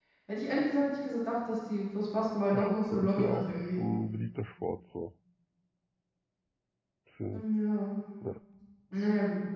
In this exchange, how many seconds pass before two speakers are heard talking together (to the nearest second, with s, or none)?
3 s